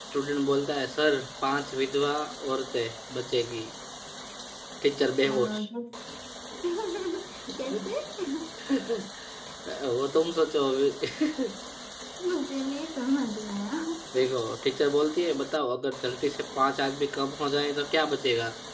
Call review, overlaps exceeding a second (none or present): none